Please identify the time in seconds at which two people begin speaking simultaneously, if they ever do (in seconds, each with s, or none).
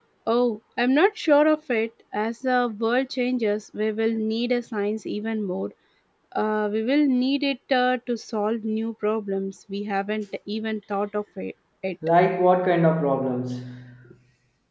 none